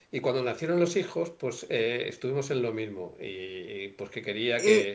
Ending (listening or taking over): listening